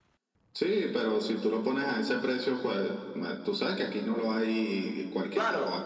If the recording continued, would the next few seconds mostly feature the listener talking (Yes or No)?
Yes